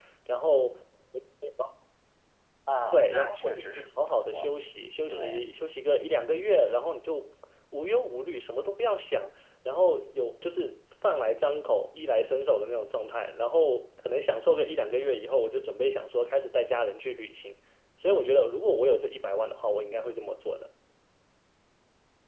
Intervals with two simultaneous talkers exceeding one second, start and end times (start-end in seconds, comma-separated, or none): 2.9-4.5